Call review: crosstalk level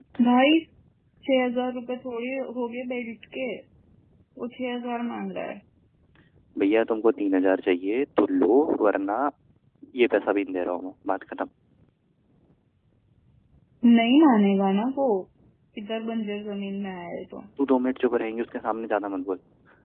none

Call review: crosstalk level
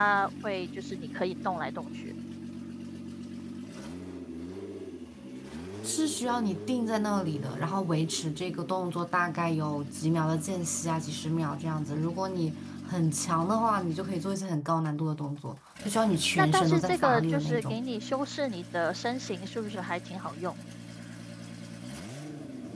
present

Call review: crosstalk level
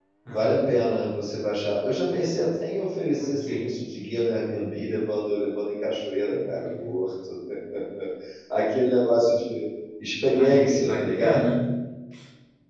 present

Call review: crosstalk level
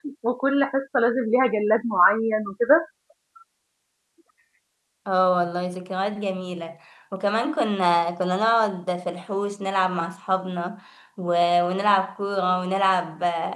none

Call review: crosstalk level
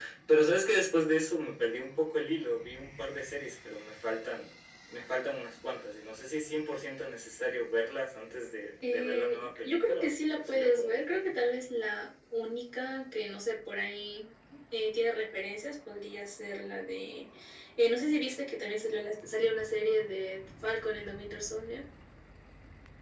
present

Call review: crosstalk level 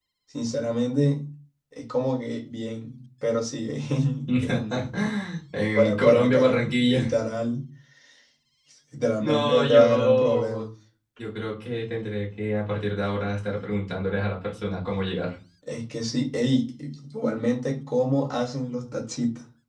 present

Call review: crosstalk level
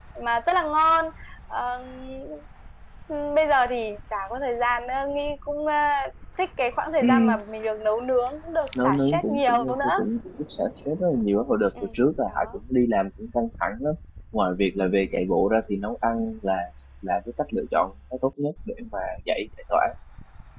present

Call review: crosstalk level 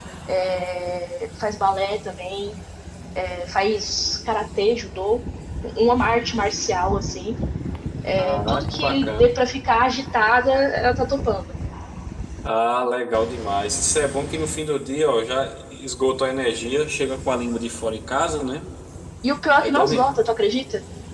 present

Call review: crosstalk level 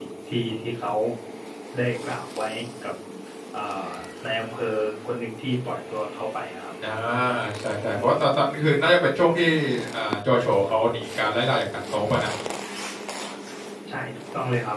none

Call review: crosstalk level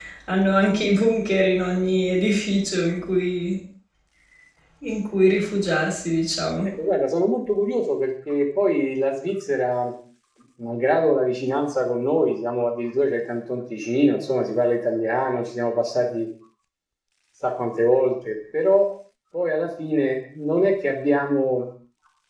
none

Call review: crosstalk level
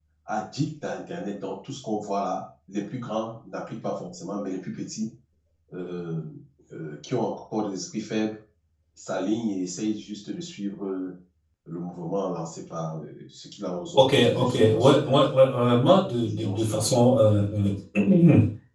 present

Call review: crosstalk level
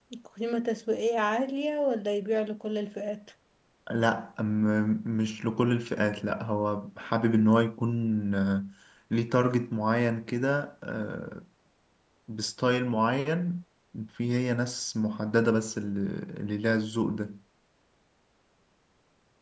none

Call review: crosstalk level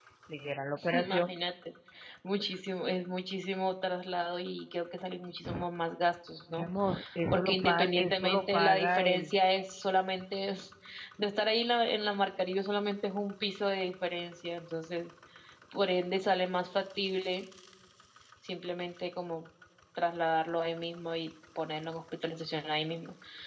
present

